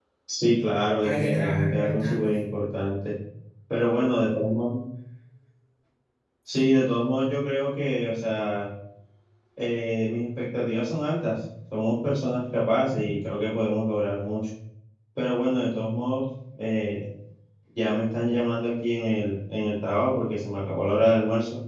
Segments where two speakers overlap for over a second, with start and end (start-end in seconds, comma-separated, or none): 1.0-2.5